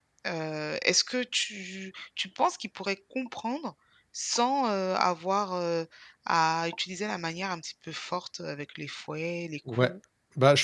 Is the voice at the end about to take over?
Yes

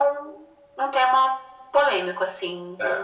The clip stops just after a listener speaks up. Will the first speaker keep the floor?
No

